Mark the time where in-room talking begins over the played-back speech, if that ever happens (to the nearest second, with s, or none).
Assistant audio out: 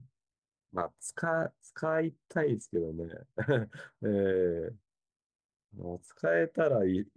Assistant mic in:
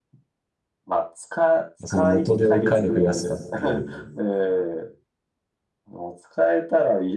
2 s